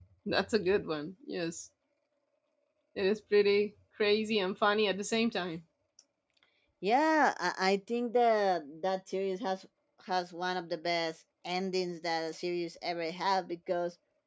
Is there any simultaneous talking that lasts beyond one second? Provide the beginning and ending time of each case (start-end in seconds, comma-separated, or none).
none